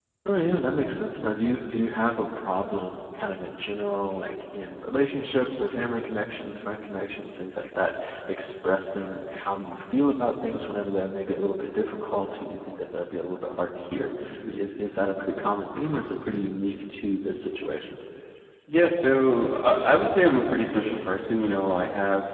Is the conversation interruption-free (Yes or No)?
Yes